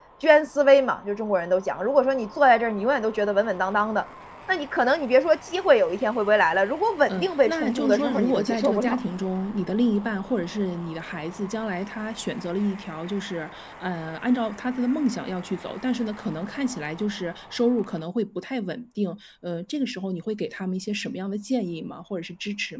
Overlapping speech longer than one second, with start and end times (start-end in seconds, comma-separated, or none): 7.1-9.0